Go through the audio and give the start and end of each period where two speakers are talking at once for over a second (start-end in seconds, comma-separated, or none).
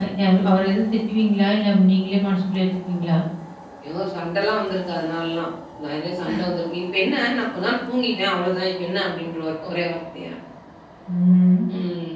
none